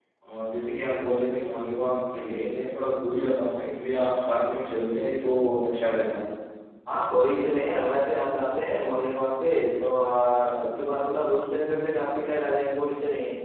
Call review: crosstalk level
none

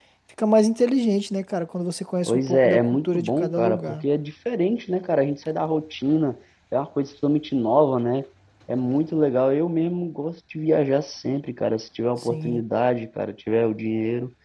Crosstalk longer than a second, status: present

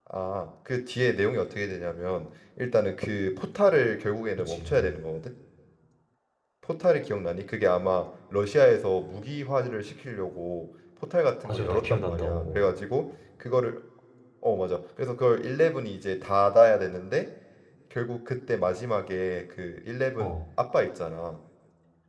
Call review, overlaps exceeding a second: present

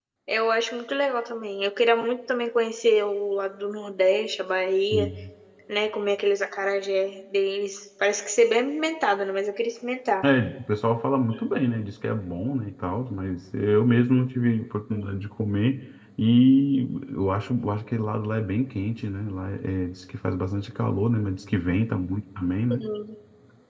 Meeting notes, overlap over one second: none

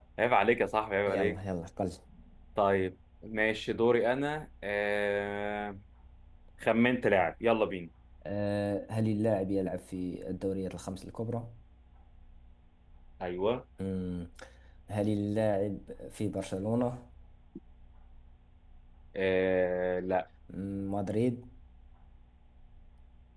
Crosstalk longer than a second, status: none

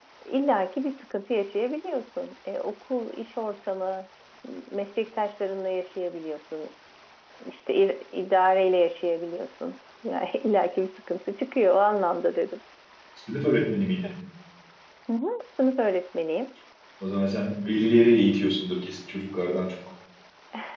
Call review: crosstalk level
none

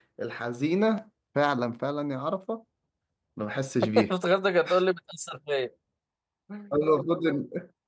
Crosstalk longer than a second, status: none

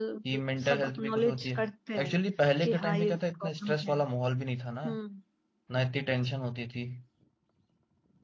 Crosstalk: present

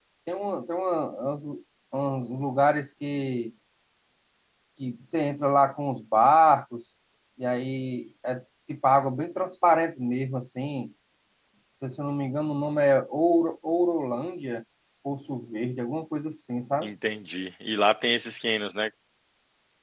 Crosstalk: none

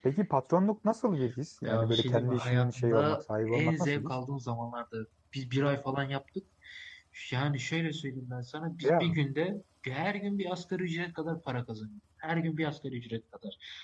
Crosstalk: present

